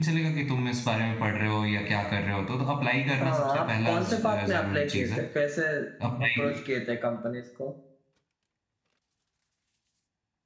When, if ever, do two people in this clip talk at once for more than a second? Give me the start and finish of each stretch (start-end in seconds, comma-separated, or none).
3.2-5.2